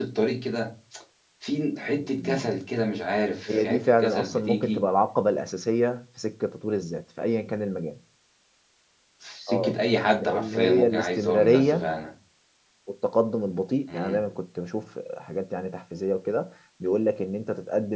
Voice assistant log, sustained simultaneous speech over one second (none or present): present